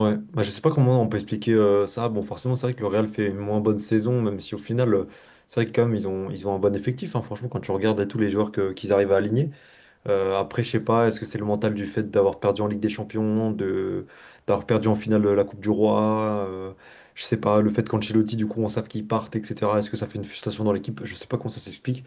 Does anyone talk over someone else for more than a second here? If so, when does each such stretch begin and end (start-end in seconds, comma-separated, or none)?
none